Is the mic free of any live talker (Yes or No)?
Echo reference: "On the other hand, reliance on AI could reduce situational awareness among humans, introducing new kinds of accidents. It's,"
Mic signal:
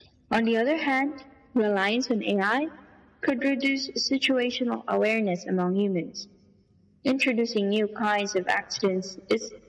Yes